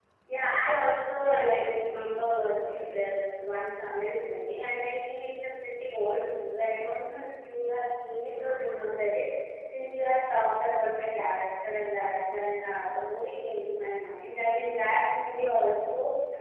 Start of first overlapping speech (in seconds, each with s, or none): 1.2 s